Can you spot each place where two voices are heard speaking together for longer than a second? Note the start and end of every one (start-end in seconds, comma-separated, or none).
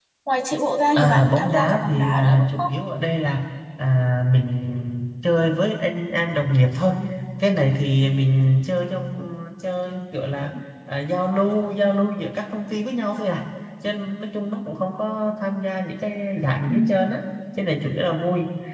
1.0-2.7